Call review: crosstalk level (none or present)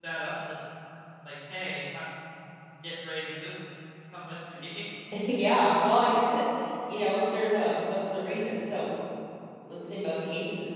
none